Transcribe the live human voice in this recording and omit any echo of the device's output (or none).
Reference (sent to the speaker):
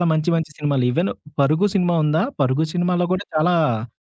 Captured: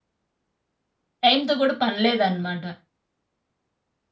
టైమ్‌తో కూడా పని లేదనమాట.